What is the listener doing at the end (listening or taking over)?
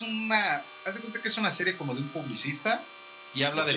listening